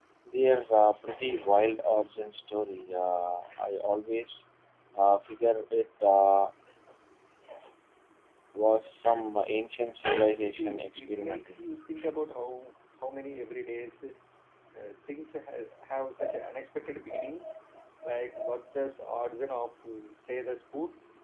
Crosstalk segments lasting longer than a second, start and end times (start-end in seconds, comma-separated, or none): 10.3-11.7